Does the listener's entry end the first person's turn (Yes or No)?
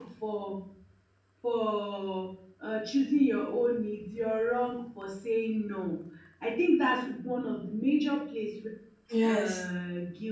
No